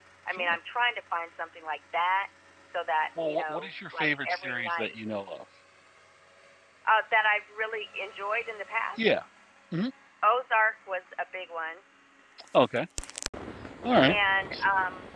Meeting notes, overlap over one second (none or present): present